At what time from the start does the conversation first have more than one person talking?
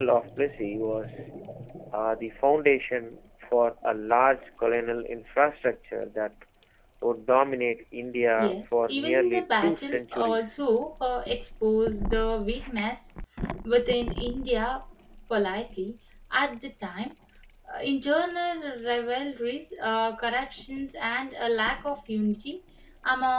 8.3 s

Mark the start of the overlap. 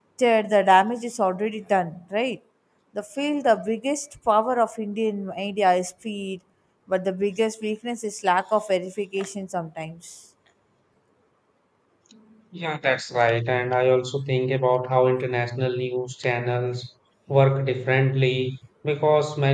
none

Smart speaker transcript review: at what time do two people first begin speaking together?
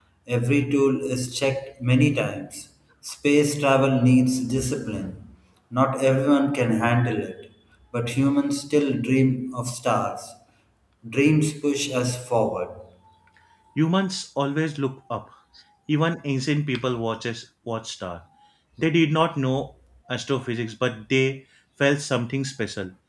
none

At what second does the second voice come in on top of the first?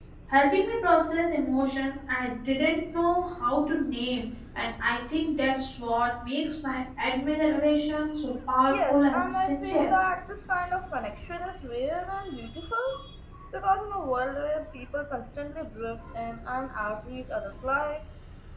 8.7 s

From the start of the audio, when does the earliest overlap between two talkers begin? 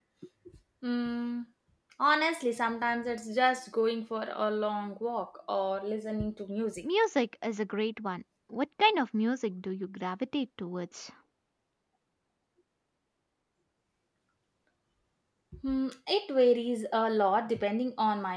none

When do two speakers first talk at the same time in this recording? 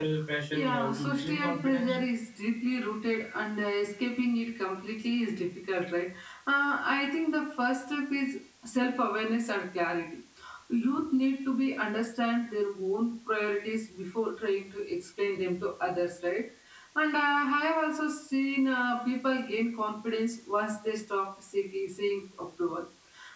0.5 s

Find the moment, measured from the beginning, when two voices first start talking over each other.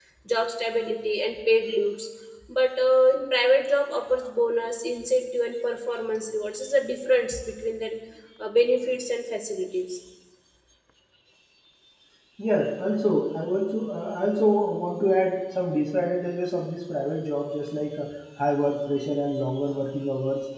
none

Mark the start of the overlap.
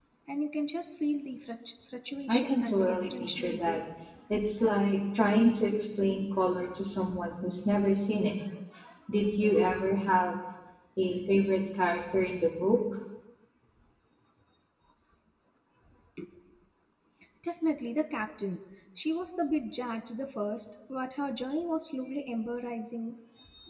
2.3 s

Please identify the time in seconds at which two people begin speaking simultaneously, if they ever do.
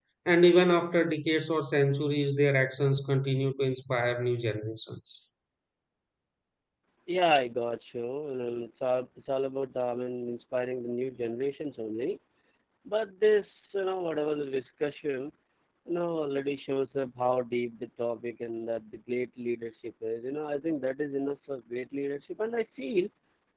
none

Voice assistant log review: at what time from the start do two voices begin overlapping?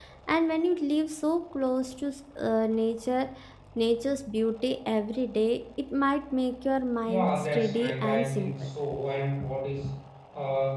7.0 s

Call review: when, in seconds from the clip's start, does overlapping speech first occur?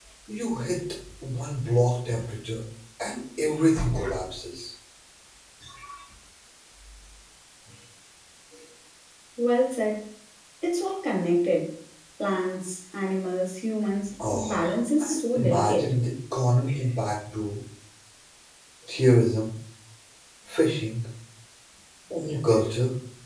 14.2 s

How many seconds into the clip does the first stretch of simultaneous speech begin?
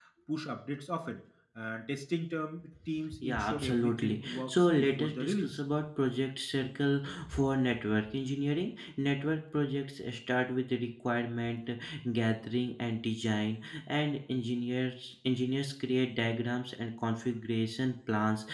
3.1 s

